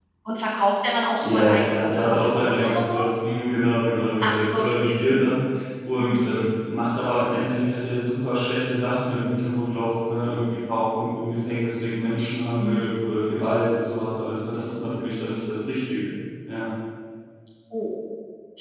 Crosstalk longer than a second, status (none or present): present